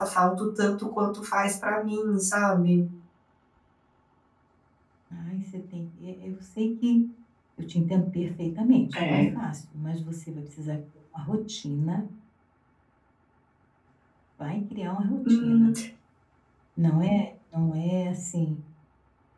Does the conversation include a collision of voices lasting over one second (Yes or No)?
No